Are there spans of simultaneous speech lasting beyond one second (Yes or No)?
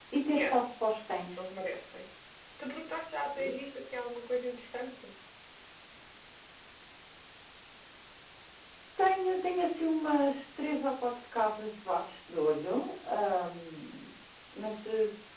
No